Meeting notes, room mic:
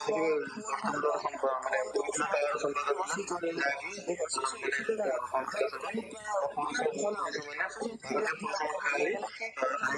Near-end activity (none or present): none